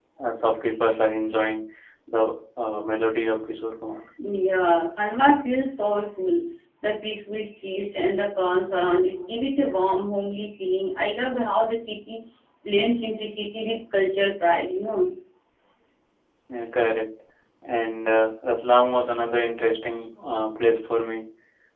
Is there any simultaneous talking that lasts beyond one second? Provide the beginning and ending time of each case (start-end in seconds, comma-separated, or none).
none